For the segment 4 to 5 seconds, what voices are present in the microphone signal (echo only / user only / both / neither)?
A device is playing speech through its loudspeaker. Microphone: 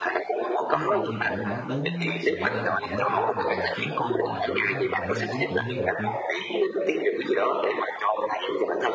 both